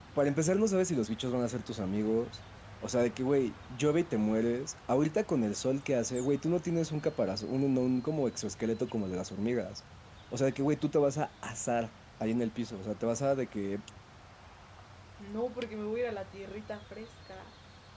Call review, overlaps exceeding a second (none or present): none